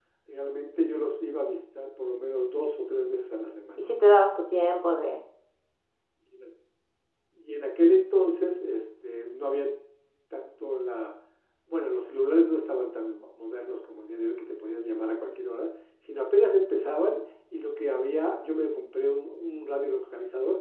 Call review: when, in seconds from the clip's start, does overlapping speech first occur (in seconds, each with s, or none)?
none